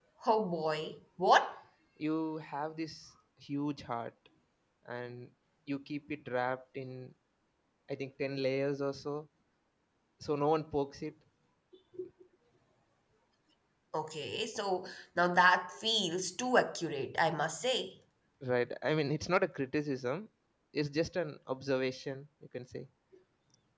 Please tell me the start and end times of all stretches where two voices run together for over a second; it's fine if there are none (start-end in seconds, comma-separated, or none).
none